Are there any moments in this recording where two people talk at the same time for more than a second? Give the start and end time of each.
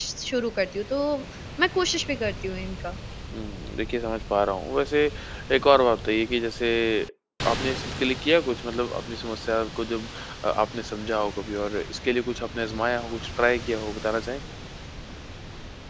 none

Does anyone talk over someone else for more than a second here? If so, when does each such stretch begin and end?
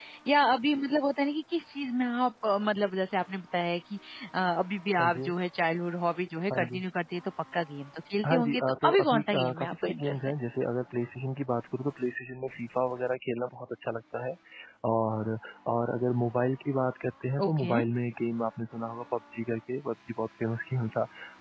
8.2-10.3

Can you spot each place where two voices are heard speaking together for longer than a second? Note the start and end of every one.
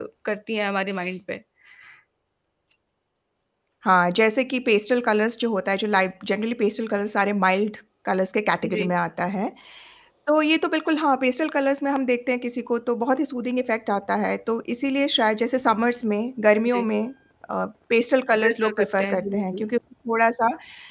18.4-19.6

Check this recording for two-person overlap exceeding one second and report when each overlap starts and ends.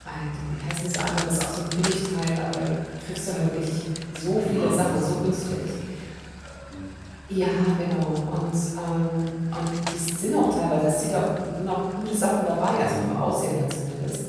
4.4-5.8

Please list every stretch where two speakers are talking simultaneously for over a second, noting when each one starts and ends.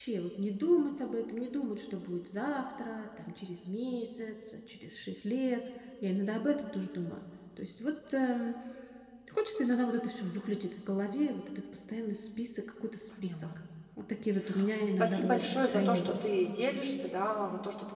15.0-16.2

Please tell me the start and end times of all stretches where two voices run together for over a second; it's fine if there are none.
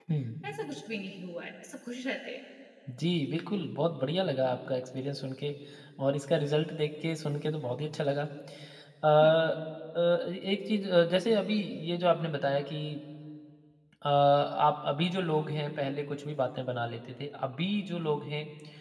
none

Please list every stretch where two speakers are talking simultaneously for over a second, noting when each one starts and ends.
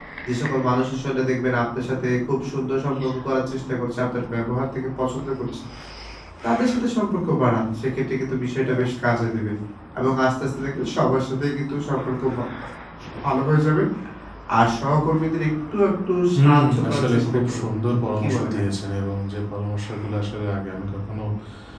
16.4-17.6

